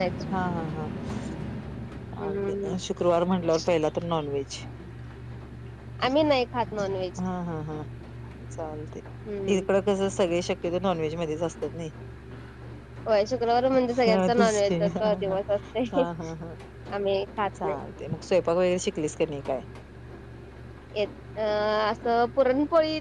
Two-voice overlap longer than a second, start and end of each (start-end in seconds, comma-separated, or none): 14.1-15.4